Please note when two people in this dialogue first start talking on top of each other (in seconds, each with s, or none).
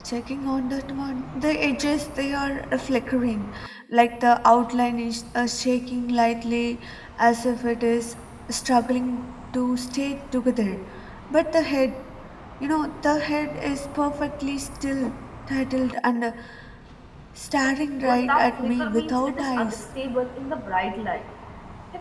18.0 s